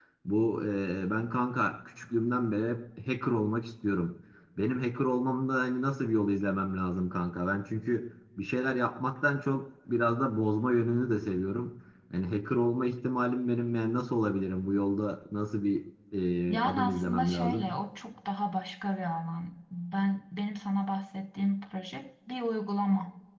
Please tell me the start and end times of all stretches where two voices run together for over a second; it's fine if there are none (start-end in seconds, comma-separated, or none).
16.5-17.7